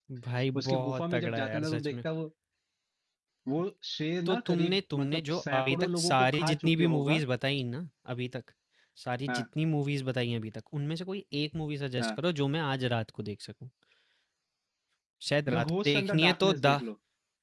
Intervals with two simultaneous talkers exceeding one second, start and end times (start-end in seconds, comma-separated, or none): 0.6-2.0, 4.3-7.2, 15.6-16.8